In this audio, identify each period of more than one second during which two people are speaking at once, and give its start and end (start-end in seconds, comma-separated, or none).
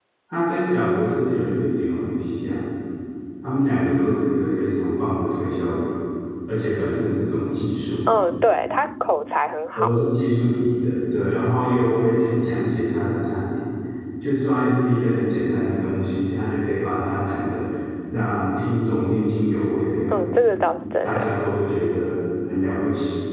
none